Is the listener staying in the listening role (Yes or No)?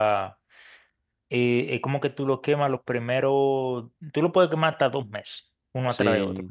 Yes